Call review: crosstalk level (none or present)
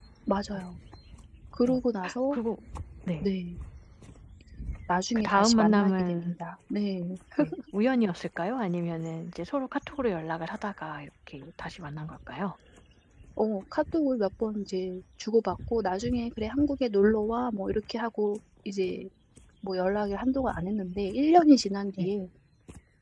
present